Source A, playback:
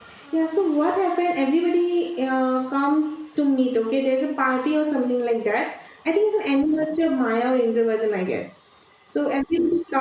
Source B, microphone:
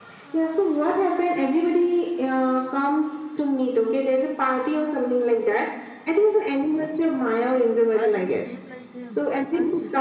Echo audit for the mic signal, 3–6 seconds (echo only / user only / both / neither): echo only